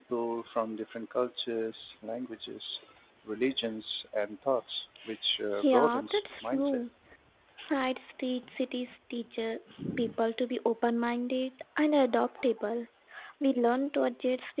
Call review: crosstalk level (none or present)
present